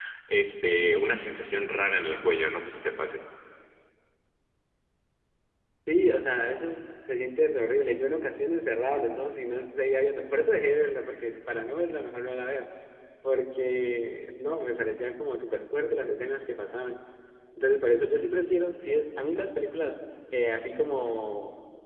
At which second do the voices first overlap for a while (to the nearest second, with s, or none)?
none